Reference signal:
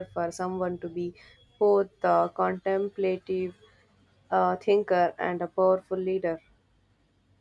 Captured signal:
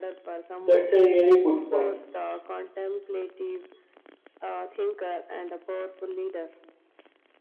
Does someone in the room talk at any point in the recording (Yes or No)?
Yes